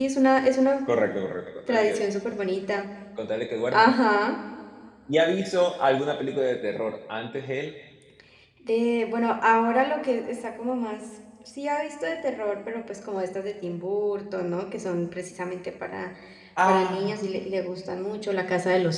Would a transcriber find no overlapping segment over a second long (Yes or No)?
Yes